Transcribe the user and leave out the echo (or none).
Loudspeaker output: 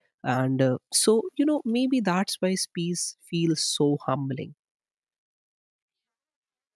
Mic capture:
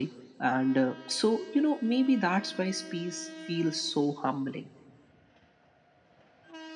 none